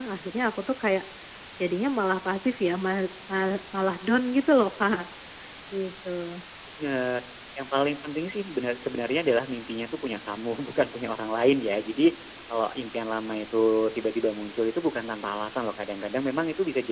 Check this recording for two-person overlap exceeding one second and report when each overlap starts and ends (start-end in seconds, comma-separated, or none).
none